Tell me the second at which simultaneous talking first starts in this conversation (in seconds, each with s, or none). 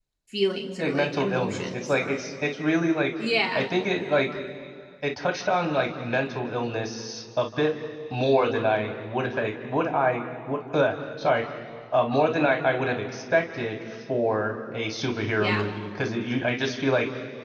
0.8 s